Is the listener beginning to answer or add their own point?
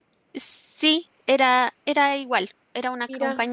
No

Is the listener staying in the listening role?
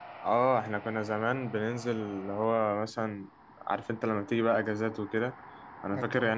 Yes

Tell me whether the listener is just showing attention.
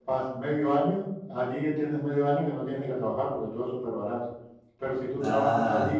Yes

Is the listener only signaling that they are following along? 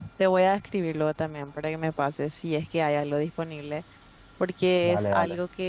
Yes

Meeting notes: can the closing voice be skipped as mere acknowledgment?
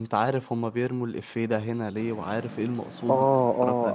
No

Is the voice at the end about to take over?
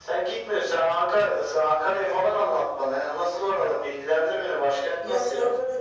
Yes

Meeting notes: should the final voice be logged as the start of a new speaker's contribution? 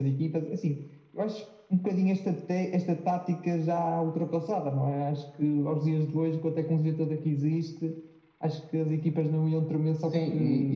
Yes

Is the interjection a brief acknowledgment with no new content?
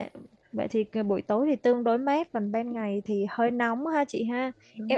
Yes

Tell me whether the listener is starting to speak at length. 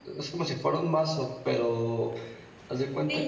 Yes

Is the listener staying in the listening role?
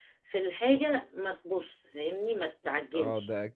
No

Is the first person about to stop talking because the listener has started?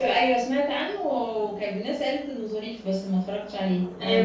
Yes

